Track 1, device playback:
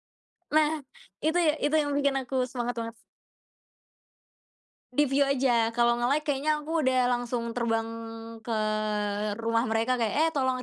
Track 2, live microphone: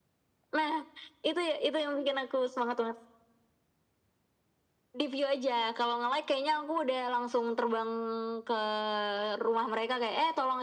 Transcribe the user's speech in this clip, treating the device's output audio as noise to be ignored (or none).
none